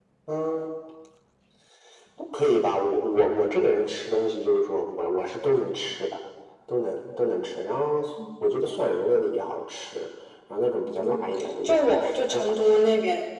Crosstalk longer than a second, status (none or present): present